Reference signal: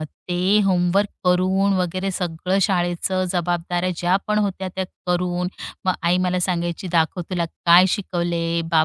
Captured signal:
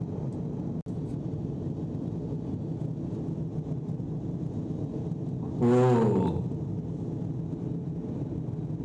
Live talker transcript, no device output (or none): हो.